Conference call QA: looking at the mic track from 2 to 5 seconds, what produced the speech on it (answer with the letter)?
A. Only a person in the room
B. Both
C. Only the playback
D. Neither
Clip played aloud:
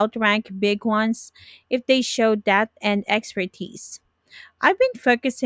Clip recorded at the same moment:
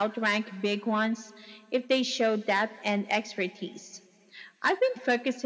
C